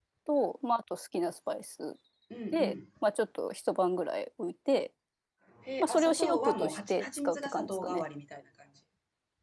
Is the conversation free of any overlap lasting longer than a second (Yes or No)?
No